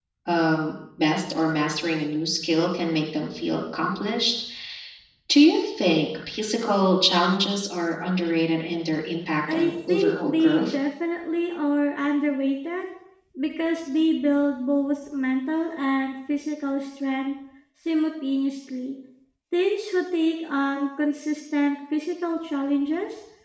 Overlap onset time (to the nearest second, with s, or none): 9 s